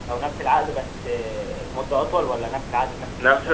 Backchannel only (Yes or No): No